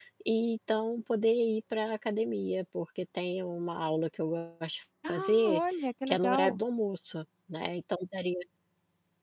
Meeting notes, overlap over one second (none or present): none